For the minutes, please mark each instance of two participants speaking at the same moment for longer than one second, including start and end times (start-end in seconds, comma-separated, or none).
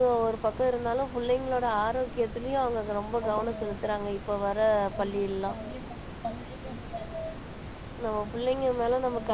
none